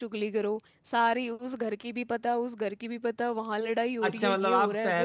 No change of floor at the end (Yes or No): No